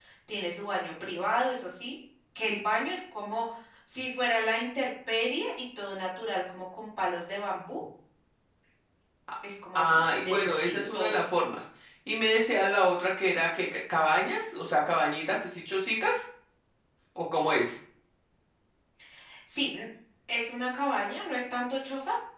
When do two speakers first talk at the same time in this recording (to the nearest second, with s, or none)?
10 s